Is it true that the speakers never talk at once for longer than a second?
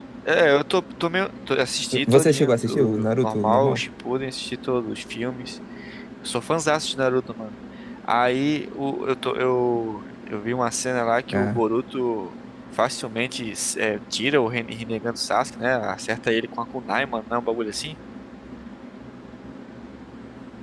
No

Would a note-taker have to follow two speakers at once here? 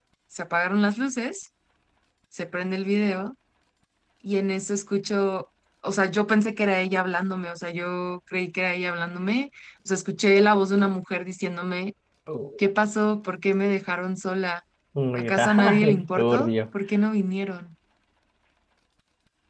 Yes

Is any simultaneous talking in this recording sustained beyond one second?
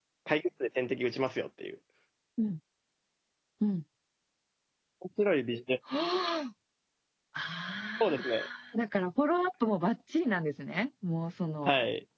No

